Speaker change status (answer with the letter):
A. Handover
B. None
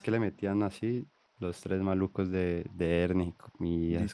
A